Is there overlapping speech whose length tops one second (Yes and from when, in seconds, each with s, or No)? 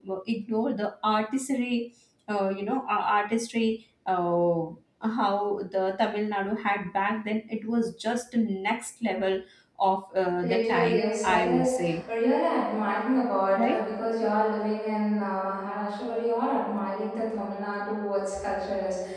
Yes, from 10.4 s